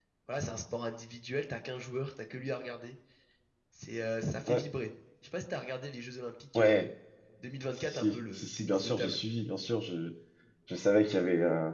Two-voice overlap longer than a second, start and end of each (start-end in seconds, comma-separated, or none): 7.7-9.2